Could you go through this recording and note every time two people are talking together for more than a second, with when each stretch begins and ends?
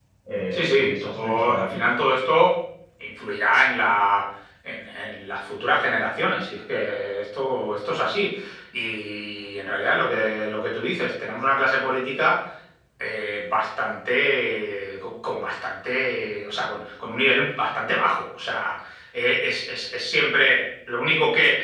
0.5-1.9

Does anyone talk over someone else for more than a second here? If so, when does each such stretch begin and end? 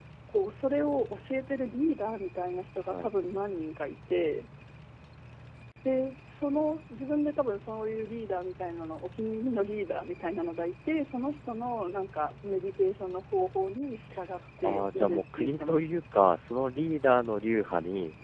14.6-16.0

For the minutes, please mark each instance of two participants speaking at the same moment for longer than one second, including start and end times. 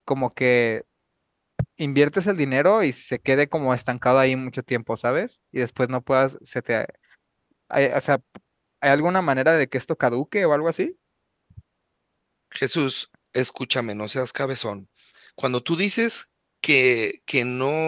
none

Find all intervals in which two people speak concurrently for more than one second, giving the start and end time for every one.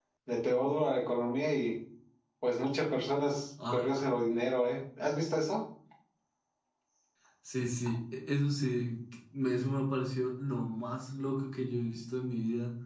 none

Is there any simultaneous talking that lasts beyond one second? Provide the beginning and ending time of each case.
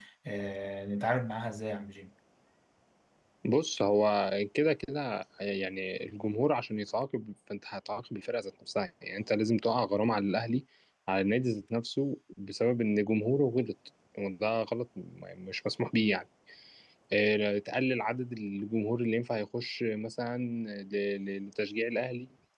none

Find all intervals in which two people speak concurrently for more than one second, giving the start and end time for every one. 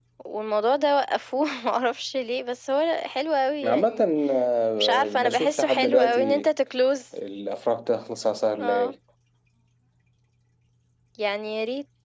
4.8-6.5

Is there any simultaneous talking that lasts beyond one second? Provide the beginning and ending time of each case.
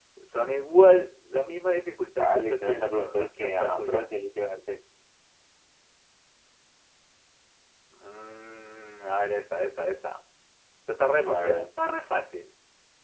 2.2-4.1

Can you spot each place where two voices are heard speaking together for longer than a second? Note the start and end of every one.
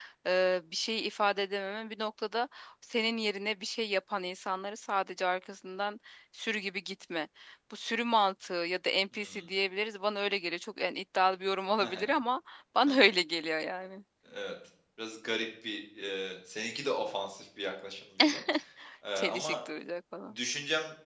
none

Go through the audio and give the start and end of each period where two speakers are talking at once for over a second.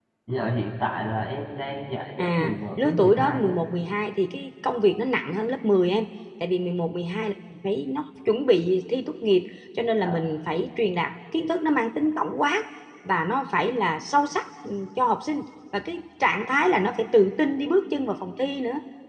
2.2-3.5

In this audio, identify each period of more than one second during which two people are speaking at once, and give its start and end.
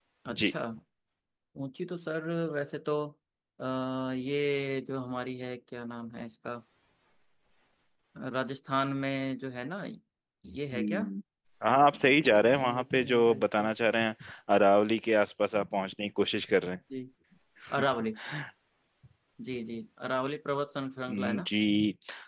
11.9-13.7

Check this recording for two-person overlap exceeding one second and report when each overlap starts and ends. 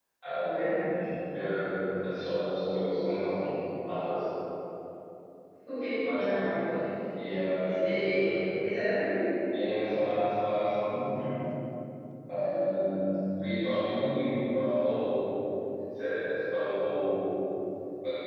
none

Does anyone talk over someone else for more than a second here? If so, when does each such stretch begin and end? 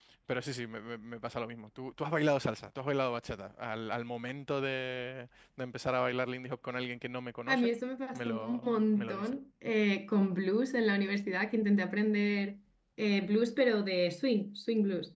8.1-9.3

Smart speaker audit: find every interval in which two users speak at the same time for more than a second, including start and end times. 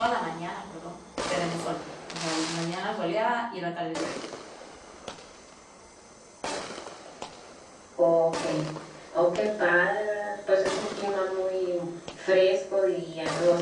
none

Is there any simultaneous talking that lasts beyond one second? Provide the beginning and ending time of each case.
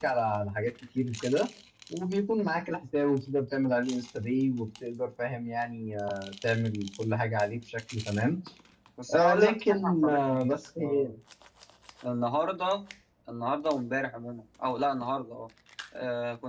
9.1-11.1

